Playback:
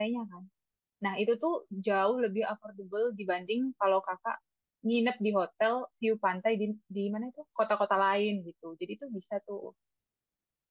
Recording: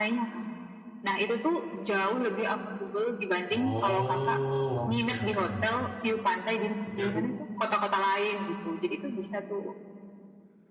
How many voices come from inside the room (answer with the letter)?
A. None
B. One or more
B